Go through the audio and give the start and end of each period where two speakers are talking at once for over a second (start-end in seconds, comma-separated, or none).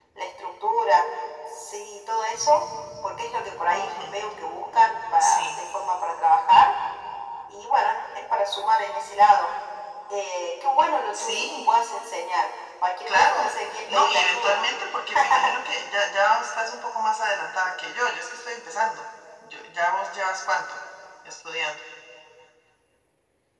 13.1-14.6